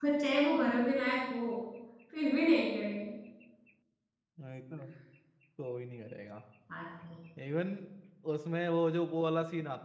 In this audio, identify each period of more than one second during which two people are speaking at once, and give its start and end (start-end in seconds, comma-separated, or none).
none